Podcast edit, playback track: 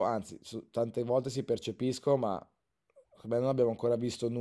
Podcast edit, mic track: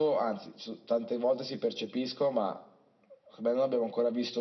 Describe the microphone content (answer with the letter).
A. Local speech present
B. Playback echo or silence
B